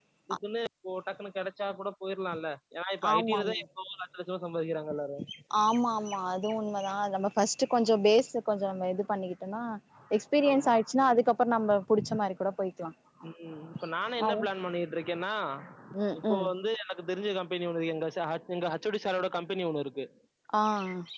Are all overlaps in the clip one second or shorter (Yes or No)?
Yes